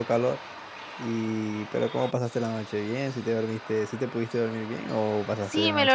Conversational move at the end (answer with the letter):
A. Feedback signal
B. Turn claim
B